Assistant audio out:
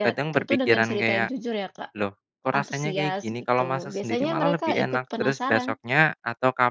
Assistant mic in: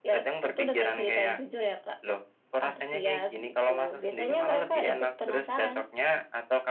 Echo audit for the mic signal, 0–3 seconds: echo only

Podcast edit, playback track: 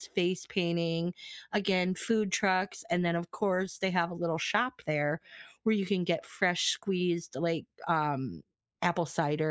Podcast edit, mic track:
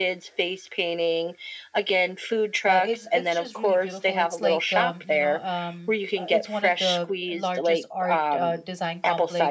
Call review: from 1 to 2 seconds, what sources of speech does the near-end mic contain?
echo only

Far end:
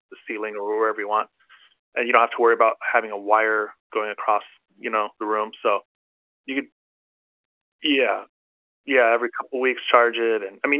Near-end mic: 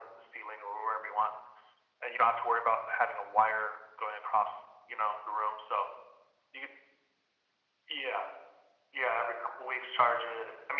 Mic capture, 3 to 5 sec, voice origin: echo only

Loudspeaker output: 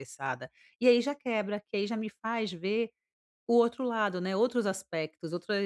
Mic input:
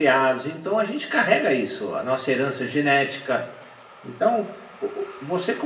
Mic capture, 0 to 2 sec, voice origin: user only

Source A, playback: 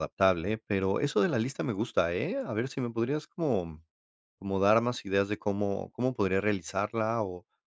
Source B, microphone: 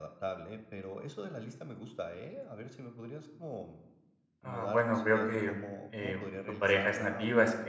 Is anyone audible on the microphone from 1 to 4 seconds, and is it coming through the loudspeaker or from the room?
echo only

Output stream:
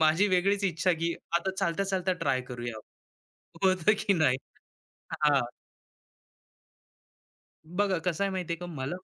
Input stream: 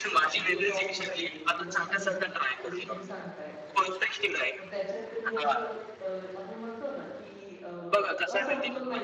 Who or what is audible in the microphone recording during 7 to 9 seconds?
both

